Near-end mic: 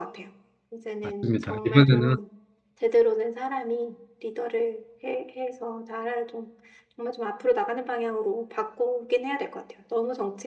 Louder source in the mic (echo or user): user